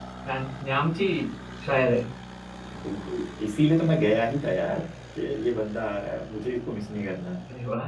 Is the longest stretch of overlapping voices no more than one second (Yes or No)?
Yes